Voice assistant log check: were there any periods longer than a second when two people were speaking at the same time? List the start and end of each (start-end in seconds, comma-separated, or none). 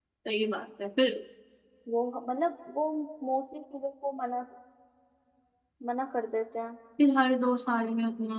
none